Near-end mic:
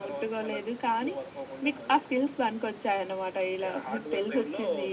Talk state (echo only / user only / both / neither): echo only